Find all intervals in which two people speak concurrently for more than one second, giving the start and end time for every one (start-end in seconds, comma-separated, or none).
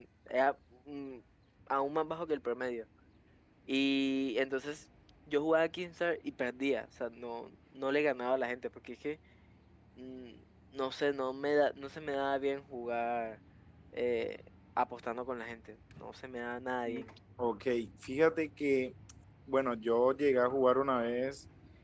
none